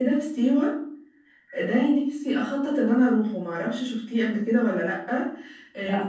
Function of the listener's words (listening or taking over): listening